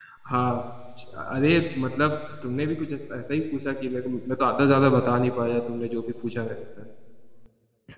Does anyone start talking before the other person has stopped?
No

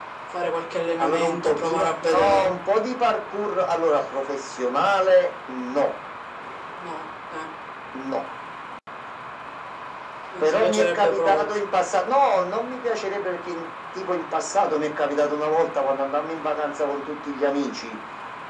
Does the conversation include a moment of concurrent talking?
Yes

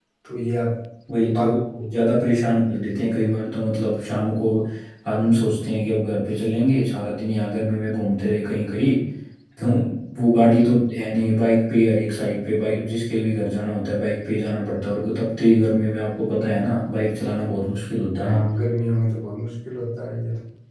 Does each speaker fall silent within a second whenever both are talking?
Yes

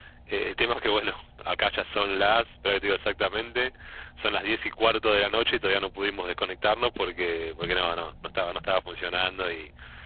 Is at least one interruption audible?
No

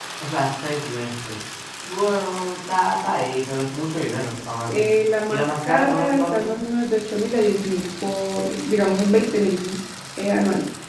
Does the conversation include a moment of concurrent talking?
Yes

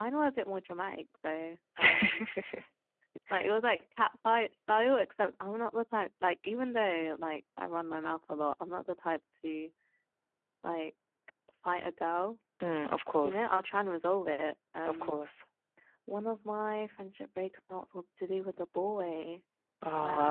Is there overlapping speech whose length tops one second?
No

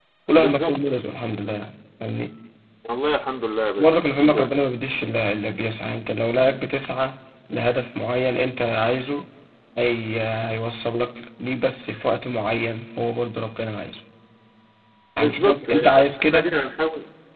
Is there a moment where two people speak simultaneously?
Yes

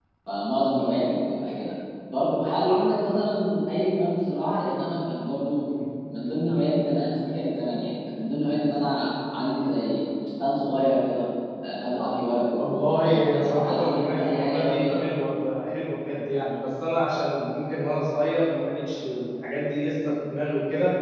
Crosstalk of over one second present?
Yes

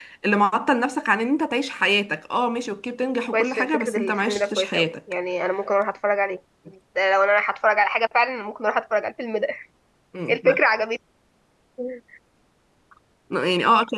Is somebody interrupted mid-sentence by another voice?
Yes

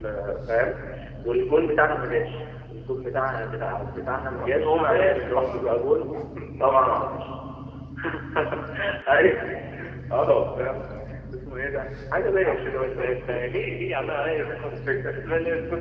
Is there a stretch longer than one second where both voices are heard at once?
Yes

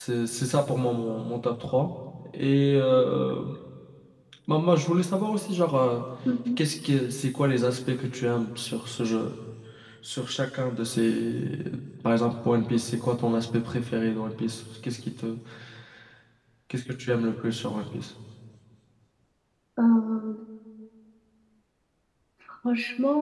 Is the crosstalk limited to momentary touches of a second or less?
Yes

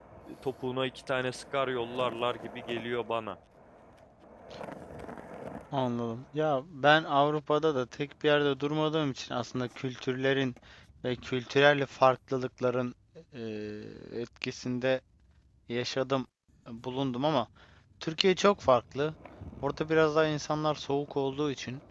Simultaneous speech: No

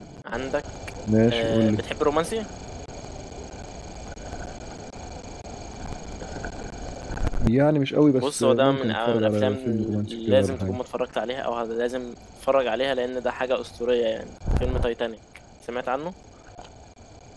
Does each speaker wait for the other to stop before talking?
No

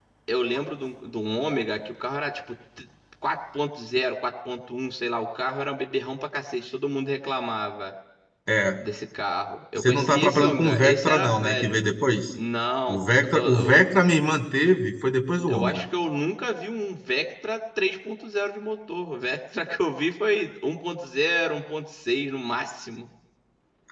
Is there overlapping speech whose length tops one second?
Yes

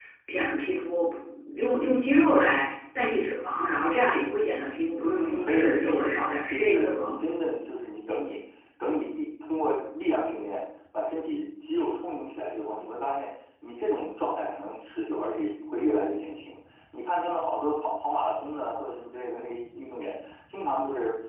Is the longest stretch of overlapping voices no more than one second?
No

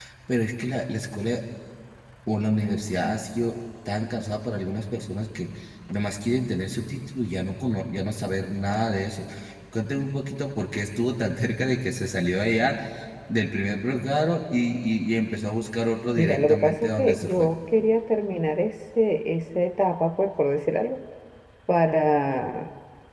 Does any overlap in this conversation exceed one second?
Yes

